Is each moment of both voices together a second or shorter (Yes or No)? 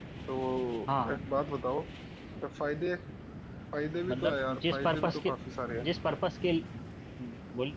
No